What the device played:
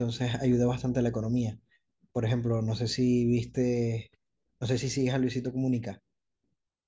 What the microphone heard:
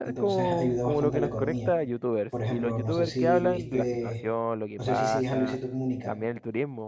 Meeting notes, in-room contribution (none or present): present